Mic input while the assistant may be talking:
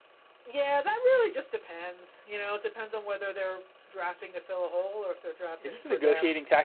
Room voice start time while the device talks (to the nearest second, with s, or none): 6 s